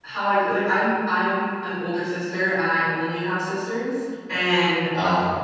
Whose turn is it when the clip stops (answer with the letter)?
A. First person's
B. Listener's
A